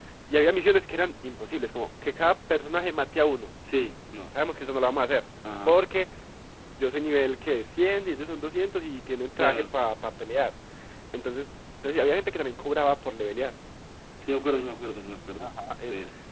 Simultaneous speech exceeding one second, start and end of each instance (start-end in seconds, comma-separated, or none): none